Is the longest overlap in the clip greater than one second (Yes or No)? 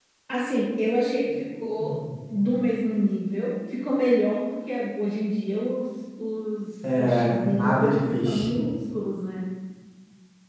Yes